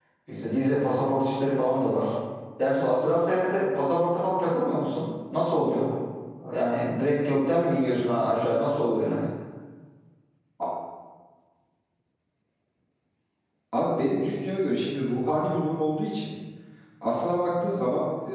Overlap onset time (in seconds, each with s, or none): none